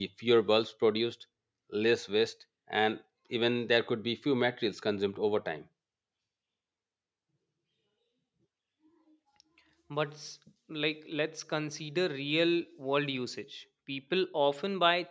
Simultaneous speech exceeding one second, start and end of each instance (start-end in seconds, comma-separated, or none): none